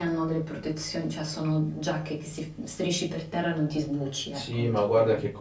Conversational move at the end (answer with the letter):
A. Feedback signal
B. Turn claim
B